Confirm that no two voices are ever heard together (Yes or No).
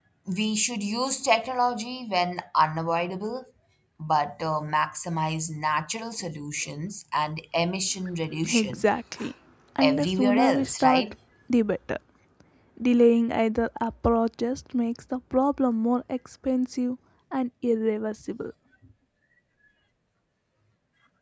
No